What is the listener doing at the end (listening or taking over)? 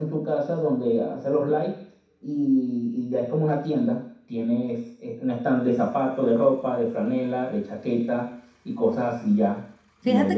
taking over